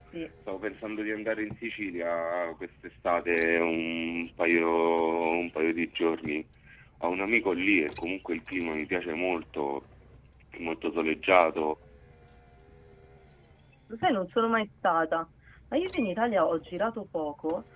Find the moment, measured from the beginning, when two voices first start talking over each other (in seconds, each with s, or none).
none